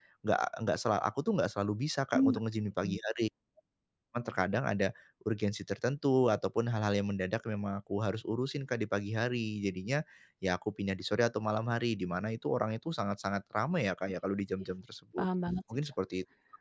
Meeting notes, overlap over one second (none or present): none